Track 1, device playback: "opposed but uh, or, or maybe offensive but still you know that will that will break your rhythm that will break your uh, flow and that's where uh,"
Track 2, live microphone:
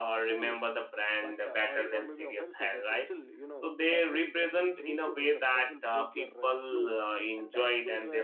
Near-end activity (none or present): present